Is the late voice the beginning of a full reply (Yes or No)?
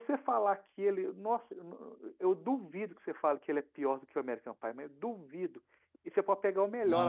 No